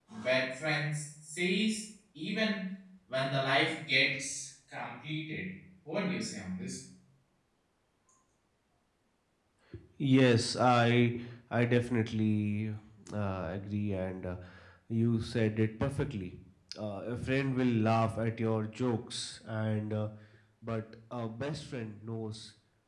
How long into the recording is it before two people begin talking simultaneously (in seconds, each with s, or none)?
none